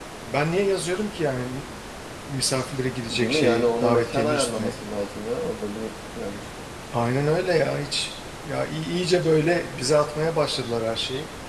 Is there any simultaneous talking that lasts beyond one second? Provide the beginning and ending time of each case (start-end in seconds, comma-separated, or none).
3.0-4.7